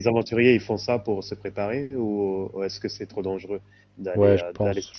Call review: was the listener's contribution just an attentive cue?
No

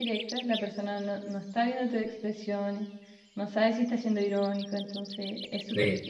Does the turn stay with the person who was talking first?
No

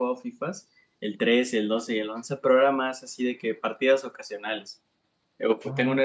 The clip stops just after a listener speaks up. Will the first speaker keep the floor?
Yes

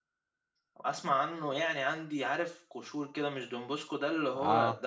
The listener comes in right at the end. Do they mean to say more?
No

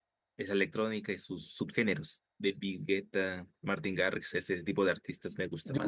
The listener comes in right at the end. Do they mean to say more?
Yes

